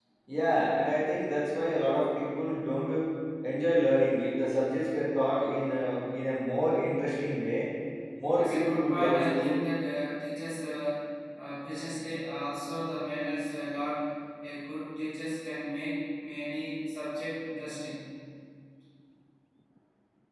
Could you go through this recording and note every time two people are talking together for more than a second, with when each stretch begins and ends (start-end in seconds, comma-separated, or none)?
8.4-9.6